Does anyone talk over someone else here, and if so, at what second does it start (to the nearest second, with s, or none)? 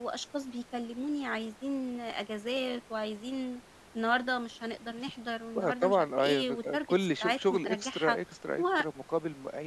6 s